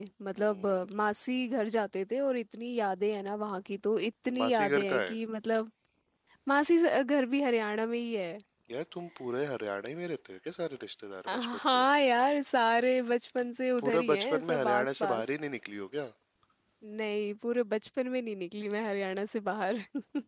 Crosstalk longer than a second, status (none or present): present